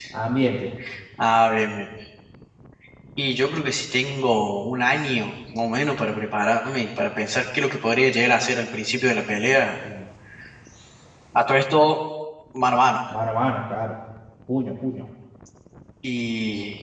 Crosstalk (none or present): none